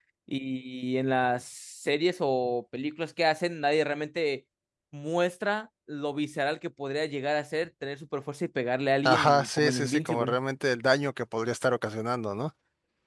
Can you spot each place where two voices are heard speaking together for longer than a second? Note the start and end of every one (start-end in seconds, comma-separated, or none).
9.1-10.3